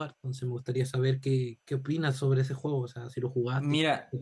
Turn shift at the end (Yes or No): Yes